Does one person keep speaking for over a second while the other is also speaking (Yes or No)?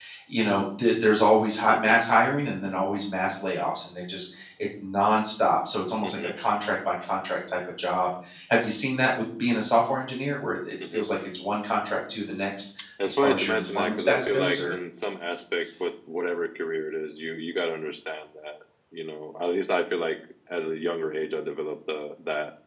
Yes